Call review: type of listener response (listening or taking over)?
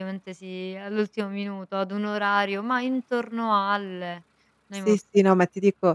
taking over